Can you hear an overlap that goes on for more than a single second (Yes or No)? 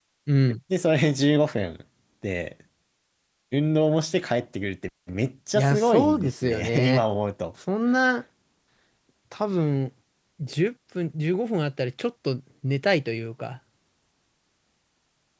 Yes